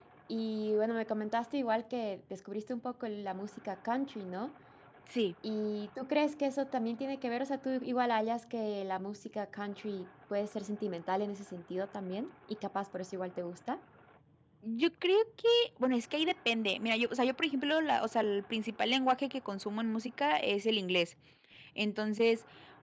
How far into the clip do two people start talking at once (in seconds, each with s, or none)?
none